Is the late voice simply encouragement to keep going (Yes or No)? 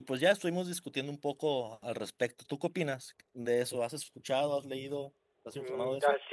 No